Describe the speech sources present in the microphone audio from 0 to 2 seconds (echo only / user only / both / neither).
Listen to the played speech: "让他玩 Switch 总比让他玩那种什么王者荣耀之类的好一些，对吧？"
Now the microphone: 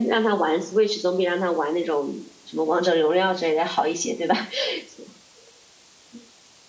echo only